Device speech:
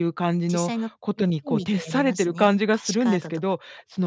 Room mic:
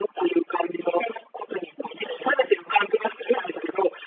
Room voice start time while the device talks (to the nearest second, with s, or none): none